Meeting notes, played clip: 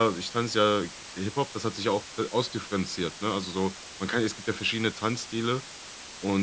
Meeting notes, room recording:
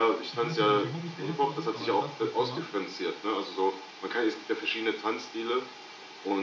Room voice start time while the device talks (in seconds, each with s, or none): 0.3 s